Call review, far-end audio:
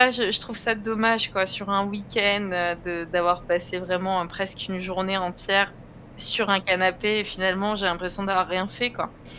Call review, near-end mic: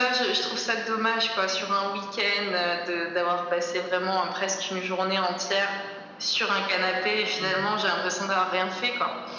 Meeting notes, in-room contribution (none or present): present